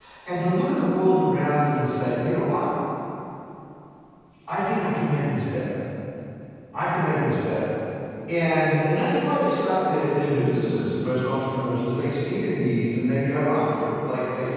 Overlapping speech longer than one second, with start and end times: none

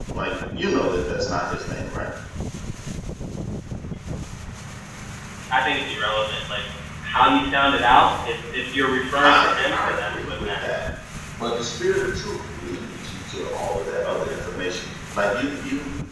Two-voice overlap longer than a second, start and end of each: 9.2-10.7

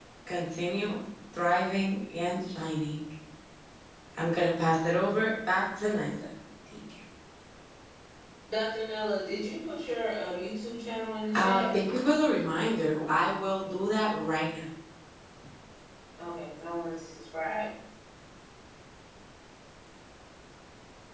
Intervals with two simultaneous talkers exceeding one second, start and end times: none

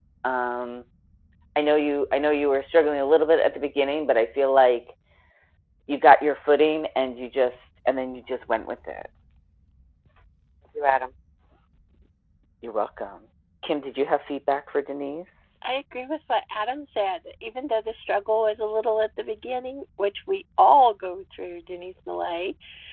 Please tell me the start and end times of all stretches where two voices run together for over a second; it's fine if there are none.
none

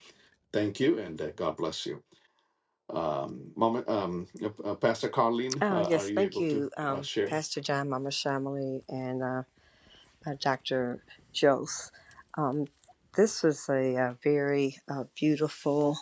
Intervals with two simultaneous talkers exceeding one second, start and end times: 5.6-7.4

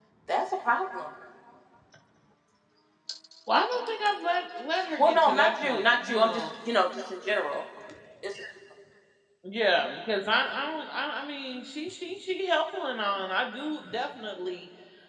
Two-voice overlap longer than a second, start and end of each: 5.0-6.4

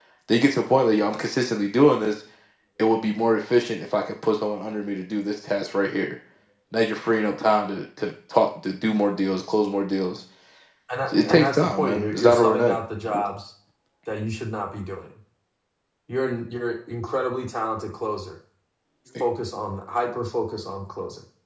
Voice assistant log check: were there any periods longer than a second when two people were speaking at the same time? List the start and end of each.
11.1-12.8

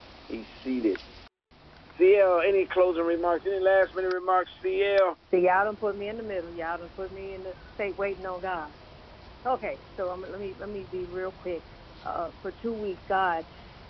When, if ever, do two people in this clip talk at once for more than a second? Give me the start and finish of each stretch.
none

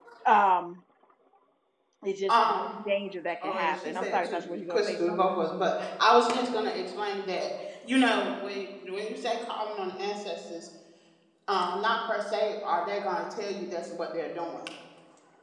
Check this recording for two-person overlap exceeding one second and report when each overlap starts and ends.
3.4-5.4

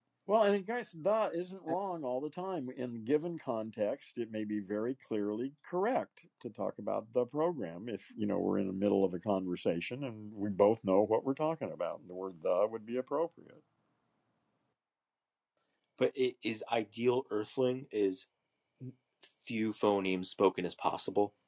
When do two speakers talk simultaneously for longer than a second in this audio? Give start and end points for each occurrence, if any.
none

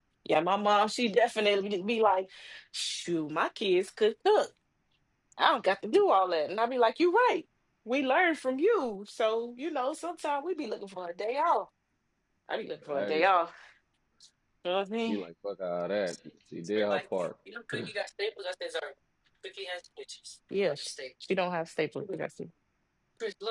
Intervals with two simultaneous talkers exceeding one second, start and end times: none

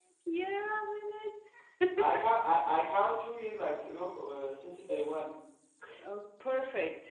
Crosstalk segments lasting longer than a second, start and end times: none

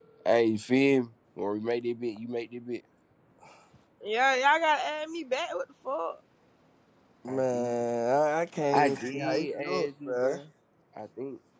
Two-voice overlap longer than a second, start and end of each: 8.7-10.3

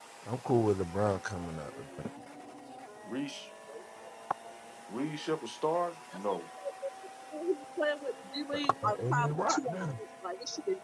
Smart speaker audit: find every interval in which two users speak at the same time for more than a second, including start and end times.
8.5-9.9

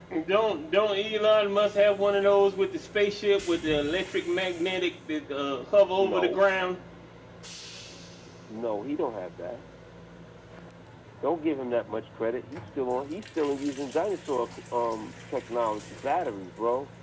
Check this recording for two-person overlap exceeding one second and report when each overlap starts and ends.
none

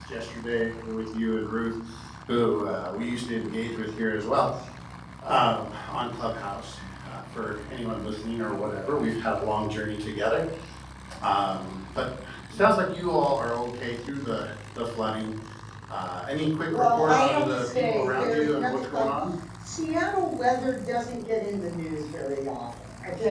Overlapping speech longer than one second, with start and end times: 16.7-19.1

